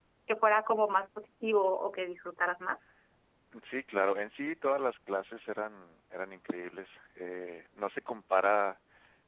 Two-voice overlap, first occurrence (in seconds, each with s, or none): none